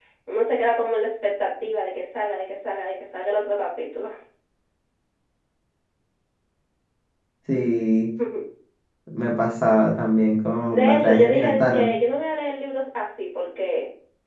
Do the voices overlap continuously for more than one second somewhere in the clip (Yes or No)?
Yes